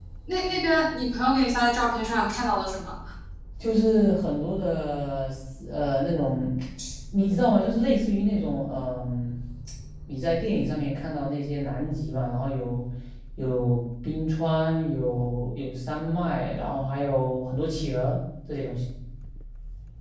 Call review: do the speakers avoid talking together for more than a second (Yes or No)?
Yes